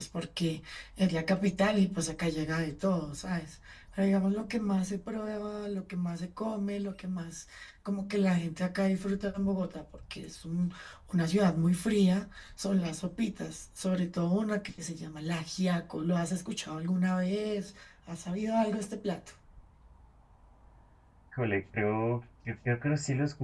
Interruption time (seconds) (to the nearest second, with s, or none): none